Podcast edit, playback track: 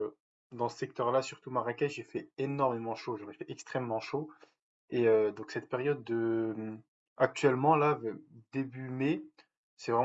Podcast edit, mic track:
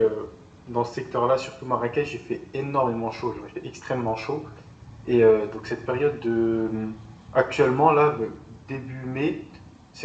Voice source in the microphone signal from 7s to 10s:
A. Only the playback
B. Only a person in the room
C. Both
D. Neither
A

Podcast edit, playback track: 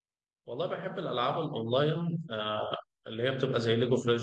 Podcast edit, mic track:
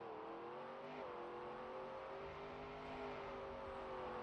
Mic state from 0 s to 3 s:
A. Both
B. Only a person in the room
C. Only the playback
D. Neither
D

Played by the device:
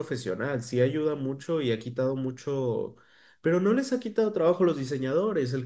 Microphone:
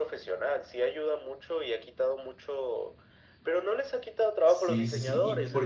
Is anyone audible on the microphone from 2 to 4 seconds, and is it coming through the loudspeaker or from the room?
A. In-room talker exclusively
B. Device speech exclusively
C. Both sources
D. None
B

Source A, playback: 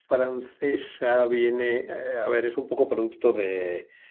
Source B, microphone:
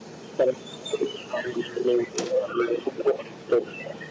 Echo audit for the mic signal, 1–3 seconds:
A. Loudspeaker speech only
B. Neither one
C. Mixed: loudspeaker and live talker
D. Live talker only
A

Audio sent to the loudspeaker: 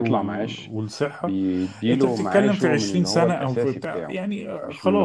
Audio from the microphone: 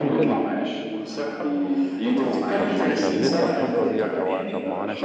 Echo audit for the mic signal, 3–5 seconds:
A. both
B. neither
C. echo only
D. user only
A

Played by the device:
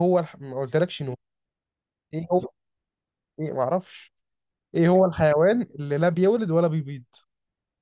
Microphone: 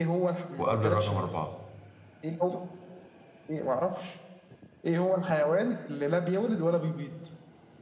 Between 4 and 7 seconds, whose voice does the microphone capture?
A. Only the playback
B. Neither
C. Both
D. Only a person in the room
A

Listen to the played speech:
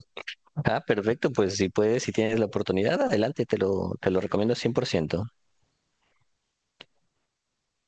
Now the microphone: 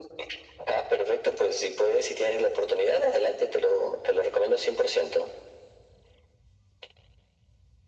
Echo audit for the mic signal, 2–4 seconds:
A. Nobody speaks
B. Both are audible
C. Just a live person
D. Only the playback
D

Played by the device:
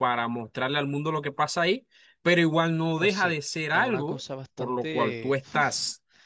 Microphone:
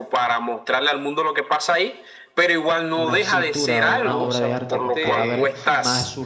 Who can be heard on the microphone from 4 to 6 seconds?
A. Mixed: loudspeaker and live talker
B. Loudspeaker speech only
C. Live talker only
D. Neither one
A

